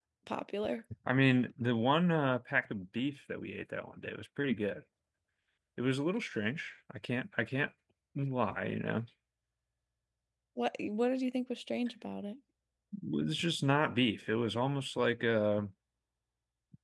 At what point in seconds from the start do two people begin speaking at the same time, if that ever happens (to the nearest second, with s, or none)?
none